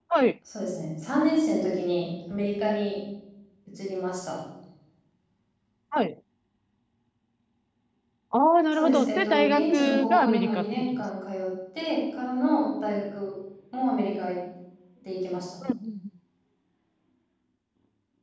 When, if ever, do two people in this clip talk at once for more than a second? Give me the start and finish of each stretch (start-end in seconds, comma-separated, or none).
8.7-11.0